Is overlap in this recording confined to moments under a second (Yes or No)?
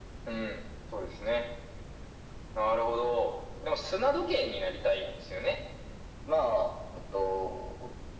Yes